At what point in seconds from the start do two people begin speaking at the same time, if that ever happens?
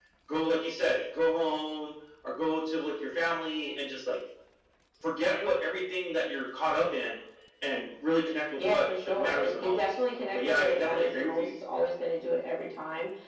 8.6 s

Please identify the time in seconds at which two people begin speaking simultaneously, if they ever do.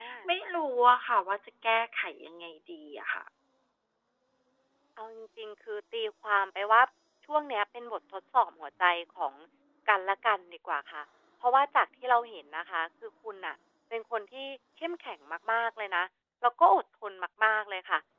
none

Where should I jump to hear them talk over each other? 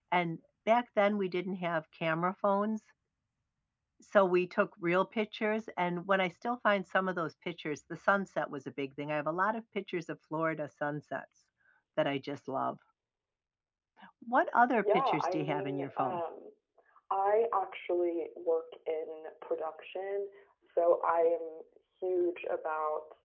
14.8 s

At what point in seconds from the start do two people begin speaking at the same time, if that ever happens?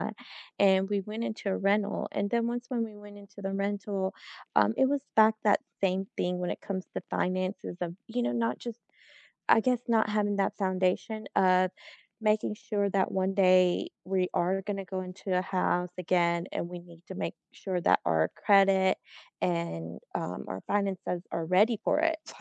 none

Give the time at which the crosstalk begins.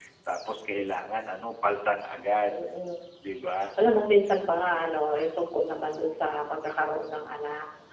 none

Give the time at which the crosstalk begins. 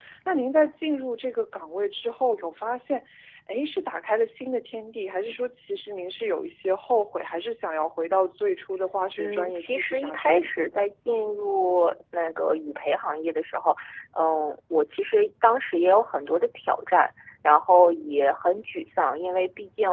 9.2 s

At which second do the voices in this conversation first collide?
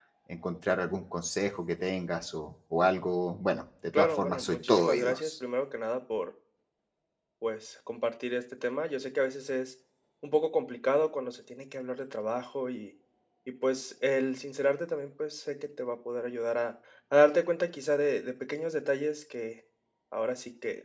3.9 s

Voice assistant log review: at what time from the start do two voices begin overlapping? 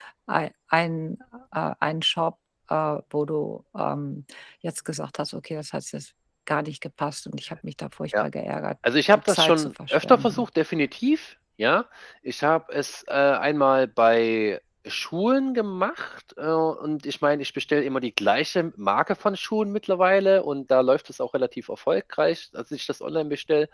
9.1 s

